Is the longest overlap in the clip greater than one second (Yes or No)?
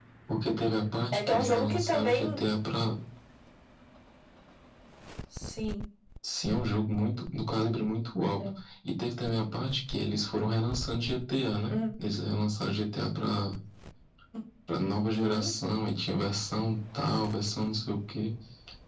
Yes